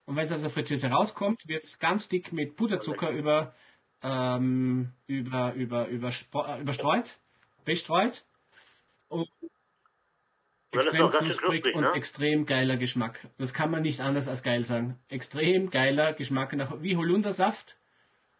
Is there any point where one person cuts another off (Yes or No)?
Yes